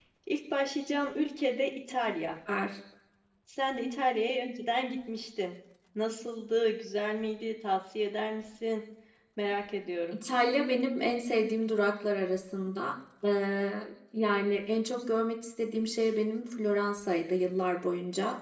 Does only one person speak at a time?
Yes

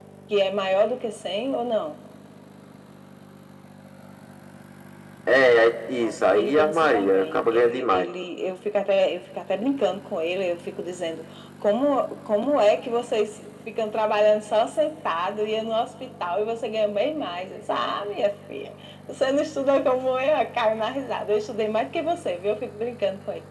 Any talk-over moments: Yes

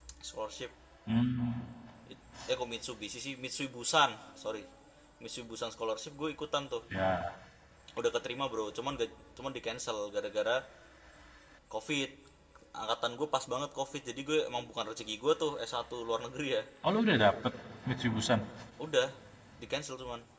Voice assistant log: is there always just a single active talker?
Yes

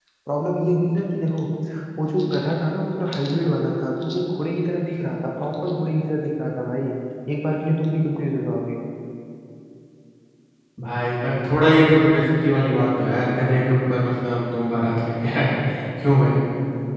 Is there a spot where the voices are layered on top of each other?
No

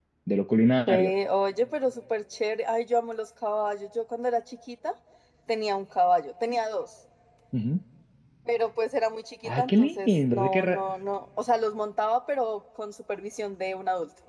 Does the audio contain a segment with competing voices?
Yes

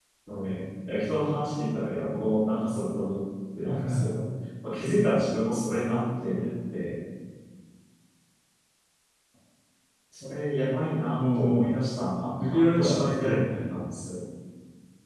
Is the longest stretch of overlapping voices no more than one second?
No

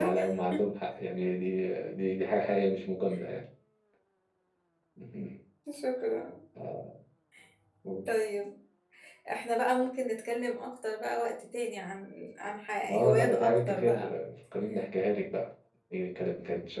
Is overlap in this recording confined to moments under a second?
No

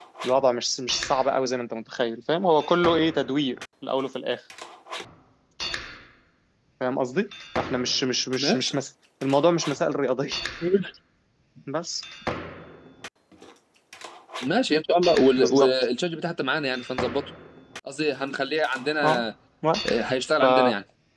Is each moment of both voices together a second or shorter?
Yes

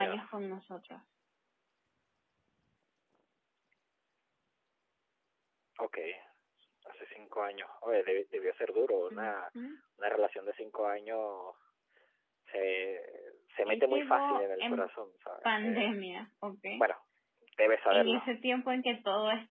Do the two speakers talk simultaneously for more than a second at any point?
Yes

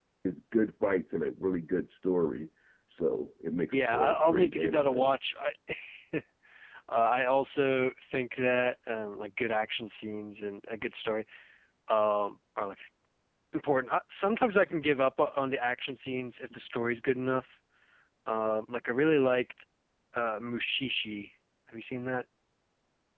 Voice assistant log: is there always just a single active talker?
No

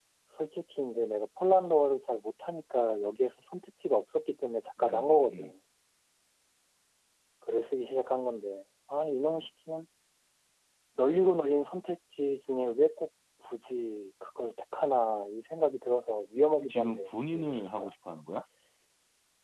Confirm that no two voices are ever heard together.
No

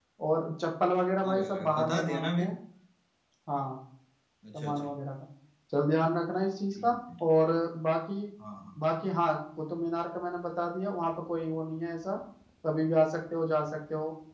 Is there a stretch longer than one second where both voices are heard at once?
Yes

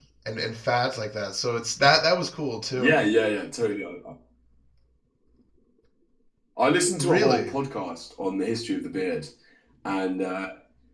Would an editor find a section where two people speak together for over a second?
No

